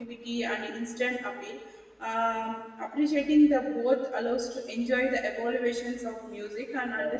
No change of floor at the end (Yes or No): No